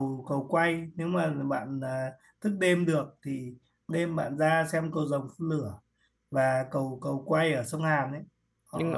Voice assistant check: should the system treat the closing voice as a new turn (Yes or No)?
No